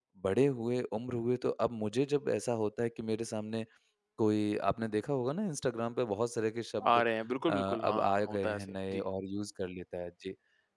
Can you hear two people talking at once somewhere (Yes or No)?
Yes